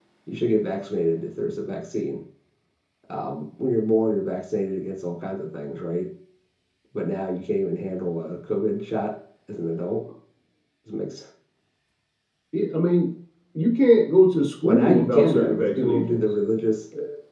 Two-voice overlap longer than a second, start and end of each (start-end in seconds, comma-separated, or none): 14.6-16.2